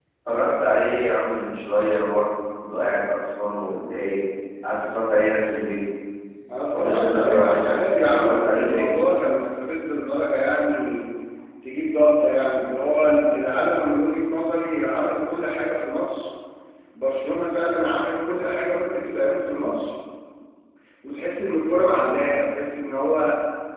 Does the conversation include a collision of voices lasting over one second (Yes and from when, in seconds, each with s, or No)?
Yes, from 6.7 s